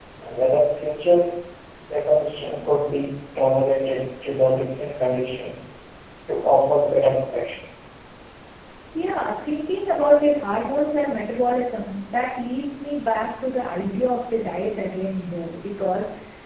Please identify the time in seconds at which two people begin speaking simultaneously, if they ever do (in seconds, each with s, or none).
none